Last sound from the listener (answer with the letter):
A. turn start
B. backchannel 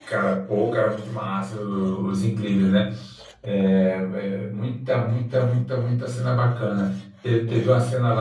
B